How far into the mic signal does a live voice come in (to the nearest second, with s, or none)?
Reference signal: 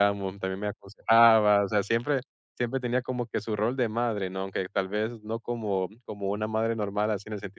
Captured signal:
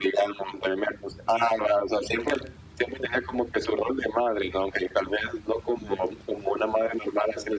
none